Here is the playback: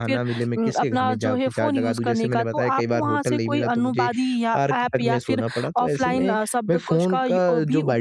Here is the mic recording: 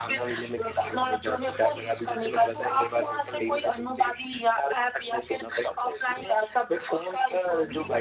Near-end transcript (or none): none